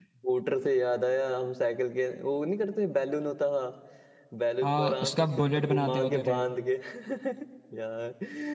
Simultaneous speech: Yes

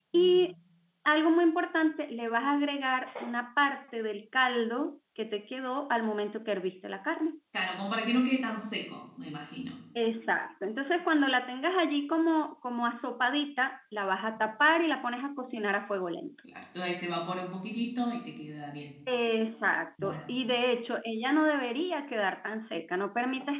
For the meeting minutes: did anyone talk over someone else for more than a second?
No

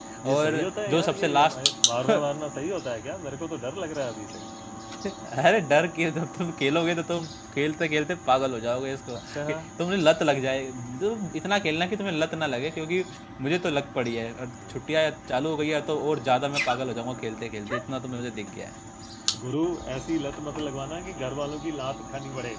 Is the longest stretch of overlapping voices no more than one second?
No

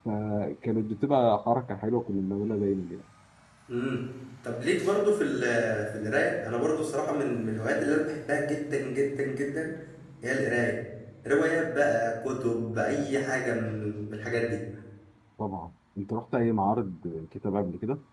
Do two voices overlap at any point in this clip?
No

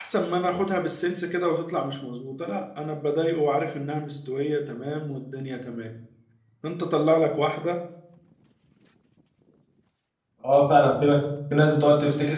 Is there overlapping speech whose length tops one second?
No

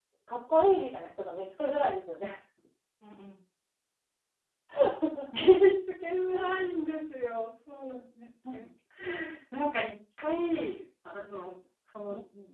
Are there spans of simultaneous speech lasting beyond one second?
No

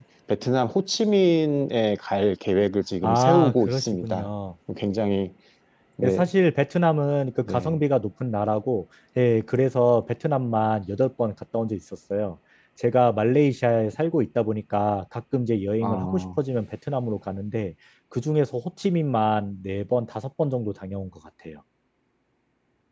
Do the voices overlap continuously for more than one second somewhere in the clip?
Yes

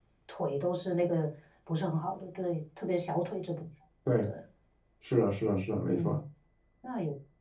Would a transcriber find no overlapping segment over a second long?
Yes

